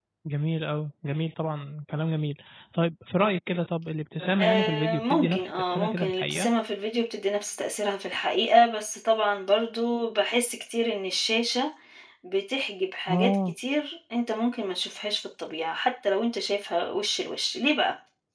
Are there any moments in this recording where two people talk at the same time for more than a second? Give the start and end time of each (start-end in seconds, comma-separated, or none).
4.4-6.5